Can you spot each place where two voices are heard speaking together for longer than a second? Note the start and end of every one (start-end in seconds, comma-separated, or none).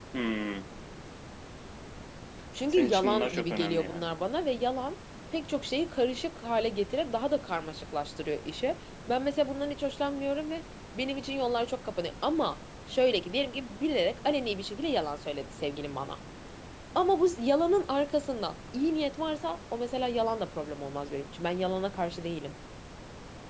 2.7-4.0